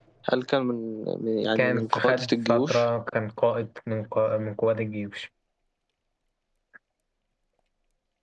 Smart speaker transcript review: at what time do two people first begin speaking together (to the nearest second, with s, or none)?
2 s